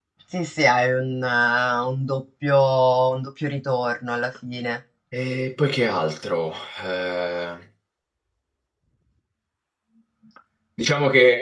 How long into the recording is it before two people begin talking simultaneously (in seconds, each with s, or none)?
none